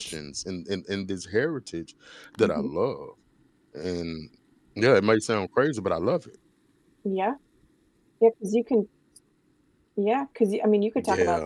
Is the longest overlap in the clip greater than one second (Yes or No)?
No